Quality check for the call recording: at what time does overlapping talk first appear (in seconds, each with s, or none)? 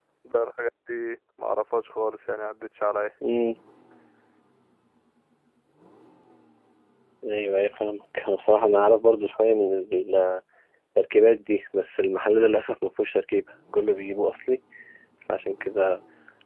none